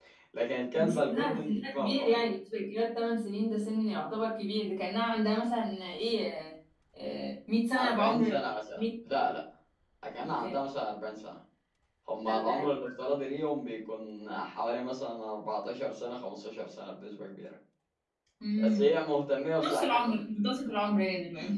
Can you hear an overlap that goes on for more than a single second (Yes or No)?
Yes